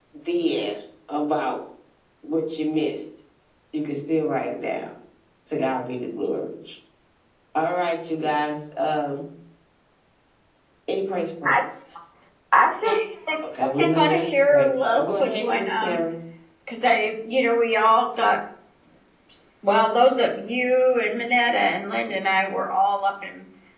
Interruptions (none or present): present